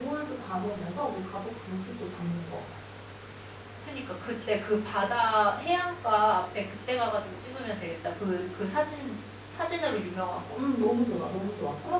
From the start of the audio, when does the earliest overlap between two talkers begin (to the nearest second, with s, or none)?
none